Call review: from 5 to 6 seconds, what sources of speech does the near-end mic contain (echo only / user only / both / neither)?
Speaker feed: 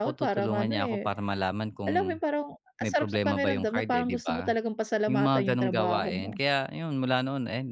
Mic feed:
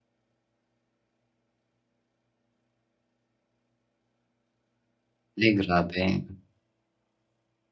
user only